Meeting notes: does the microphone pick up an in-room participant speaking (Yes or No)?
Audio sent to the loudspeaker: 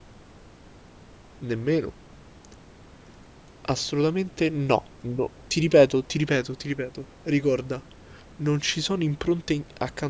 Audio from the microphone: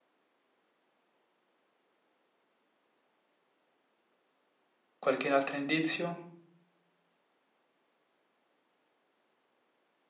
Yes